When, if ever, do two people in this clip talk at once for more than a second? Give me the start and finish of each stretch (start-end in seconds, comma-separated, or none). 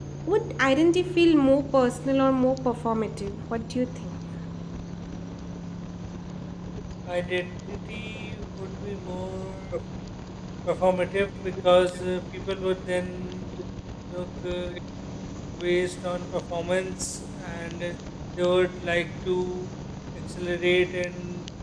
none